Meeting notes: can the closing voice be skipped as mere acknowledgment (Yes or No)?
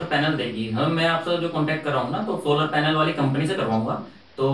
Yes